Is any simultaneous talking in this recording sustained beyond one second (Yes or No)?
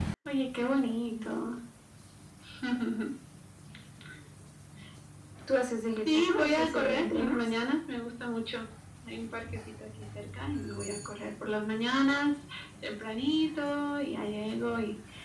Yes